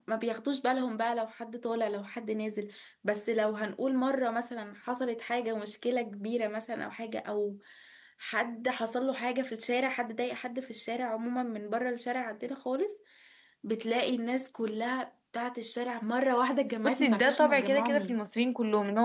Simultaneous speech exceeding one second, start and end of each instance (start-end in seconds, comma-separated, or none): 16.8-18.2